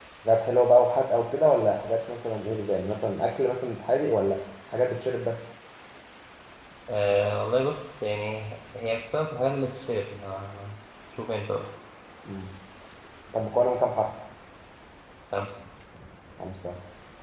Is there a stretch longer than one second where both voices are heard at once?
No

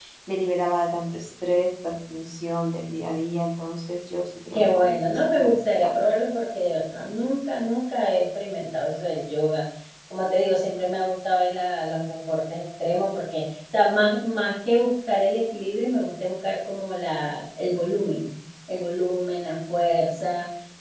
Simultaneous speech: Yes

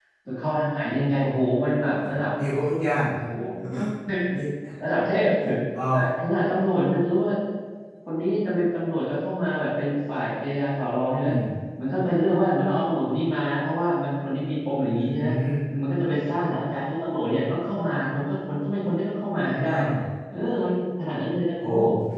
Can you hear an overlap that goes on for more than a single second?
No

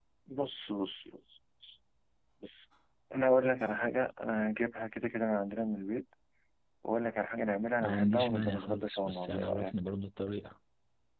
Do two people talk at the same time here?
Yes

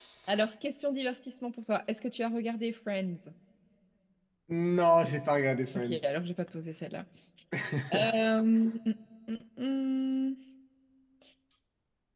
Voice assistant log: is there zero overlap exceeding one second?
Yes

